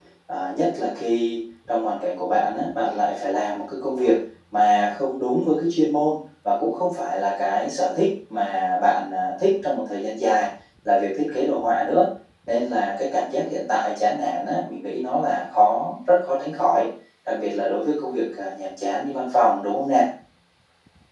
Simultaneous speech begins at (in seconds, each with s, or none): none